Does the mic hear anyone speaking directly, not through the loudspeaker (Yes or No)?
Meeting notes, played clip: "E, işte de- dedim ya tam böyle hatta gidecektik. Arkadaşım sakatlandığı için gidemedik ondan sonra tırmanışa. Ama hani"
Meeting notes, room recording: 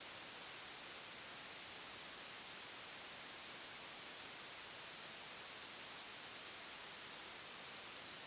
No